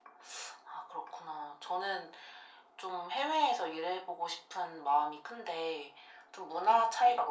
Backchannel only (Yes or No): Yes